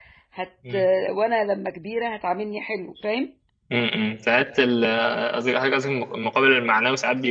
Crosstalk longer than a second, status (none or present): none